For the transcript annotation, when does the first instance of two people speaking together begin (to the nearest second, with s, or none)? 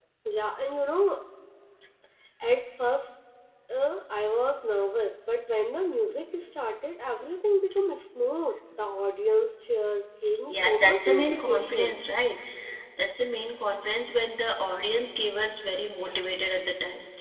11 s